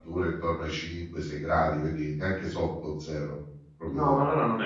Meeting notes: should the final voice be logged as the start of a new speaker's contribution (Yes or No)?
Yes